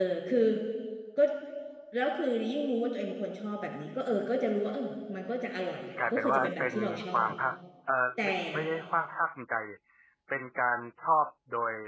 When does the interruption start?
6.1 s

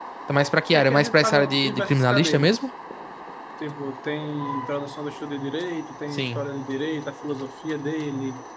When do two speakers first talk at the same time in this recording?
0.7 s

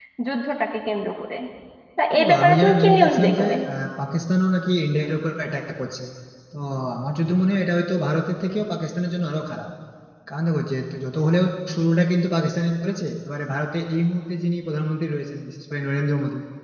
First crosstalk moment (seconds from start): 2.2 s

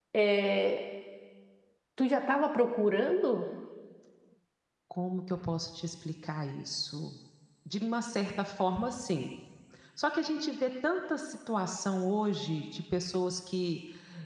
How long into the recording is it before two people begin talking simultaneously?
none

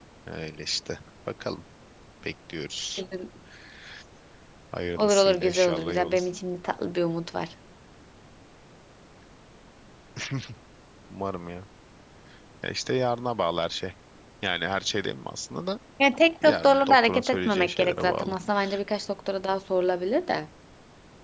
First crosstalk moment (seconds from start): 5.0 s

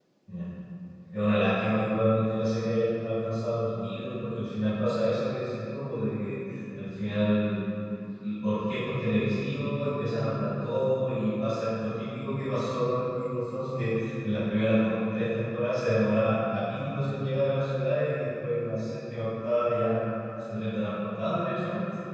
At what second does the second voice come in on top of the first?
none

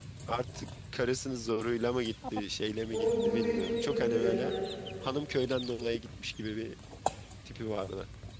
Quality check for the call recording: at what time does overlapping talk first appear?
2.9 s

